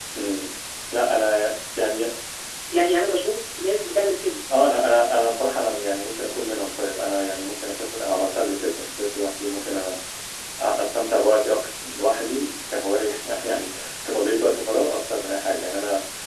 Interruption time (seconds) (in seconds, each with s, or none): none